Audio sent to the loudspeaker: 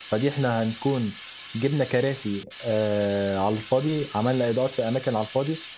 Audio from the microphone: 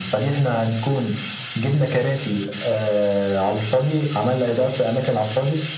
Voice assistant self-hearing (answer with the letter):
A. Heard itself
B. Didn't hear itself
A